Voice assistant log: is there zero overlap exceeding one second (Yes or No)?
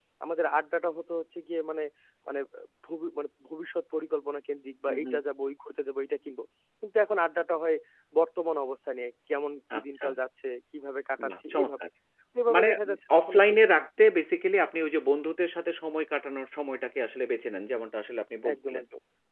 No